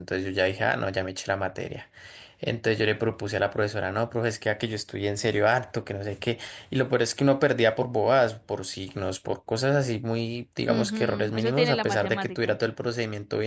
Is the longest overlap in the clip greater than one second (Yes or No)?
Yes